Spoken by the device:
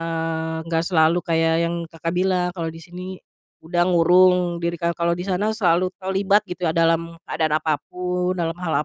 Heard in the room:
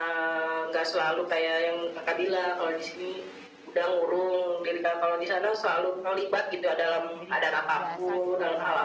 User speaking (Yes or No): Yes